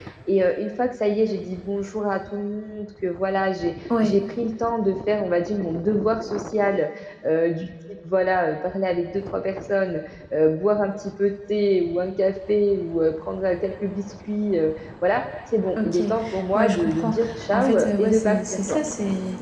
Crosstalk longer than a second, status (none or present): present